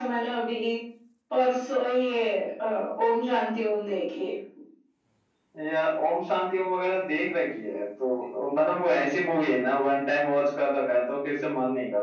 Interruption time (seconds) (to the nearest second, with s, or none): none